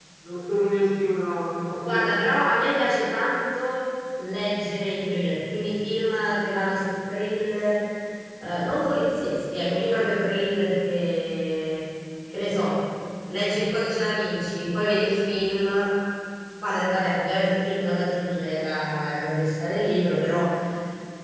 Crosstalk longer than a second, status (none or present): none